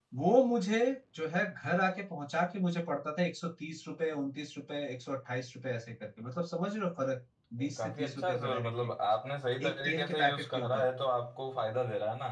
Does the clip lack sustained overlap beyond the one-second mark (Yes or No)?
No